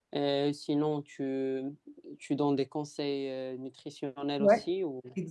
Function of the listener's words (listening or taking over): taking over